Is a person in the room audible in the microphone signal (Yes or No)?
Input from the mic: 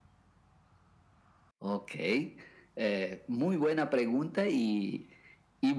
No